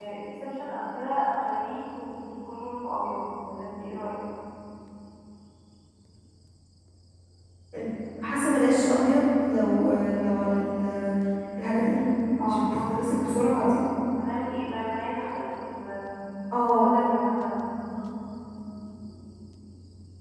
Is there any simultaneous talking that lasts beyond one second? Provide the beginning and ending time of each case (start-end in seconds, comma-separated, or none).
12.4-13.8